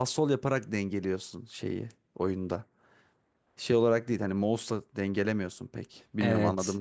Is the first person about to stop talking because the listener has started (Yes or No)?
Yes